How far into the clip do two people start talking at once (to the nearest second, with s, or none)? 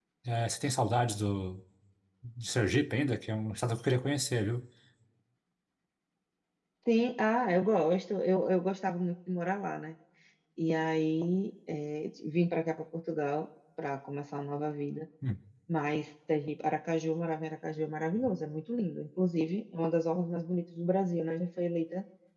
none